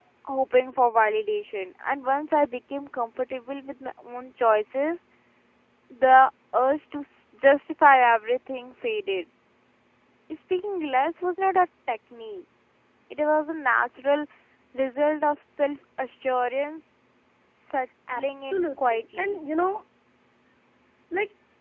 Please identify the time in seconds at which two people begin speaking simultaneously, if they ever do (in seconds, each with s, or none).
18.1 s